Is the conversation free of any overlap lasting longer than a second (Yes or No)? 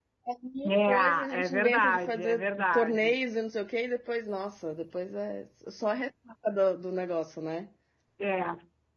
No